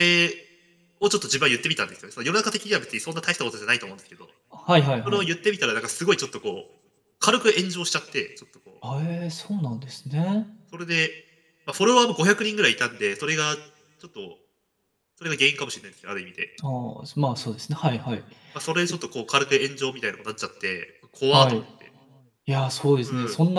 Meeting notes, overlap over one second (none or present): none